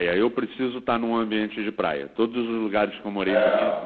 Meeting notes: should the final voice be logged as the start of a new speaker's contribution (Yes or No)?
No